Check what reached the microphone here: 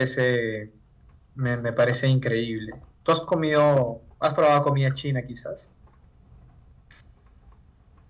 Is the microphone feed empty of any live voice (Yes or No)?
No